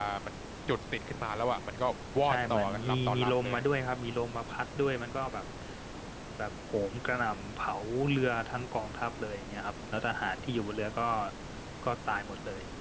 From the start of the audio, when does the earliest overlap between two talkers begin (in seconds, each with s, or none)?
2.2 s